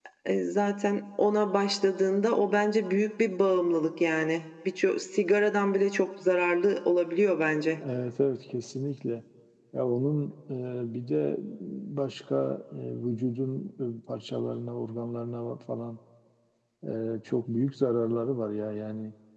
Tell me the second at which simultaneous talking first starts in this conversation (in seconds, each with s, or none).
none